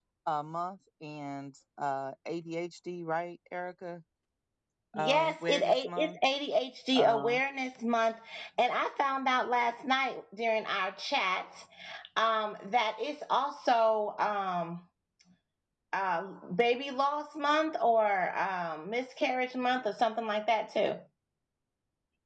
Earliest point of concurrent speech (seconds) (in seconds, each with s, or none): 5.0 s